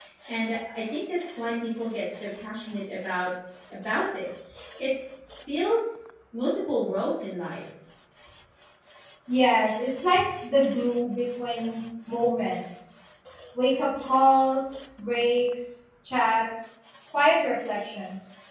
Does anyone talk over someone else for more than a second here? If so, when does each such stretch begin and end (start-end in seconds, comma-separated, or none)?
none